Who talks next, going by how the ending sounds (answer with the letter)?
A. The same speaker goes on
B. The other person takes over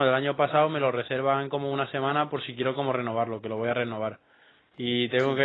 A